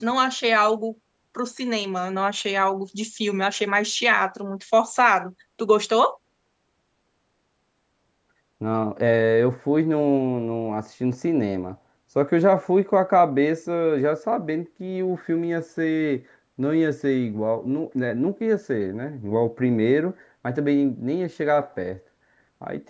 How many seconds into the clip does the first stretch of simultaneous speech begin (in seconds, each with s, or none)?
none